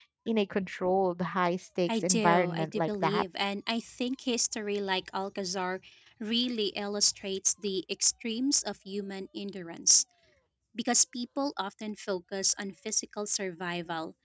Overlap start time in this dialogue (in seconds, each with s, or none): 1.9 s